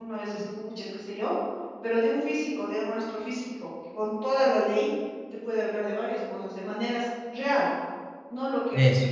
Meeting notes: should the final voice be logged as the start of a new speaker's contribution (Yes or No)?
No